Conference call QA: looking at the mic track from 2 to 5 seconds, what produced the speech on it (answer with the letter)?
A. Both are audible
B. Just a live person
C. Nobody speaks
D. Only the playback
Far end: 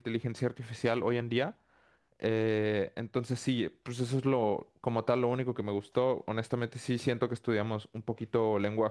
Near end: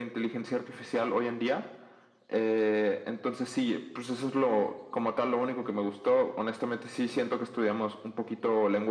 D